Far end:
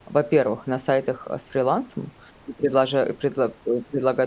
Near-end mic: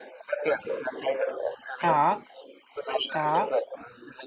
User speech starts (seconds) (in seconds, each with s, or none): 1.8 s